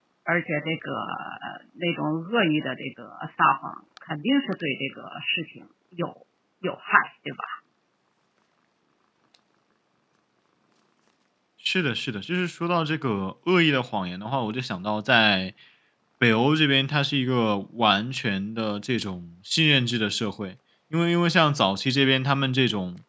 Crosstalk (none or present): none